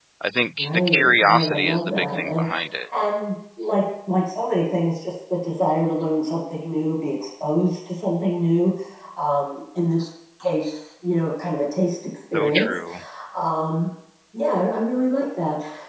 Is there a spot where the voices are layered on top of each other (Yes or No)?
Yes